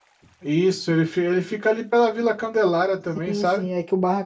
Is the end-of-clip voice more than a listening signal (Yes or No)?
Yes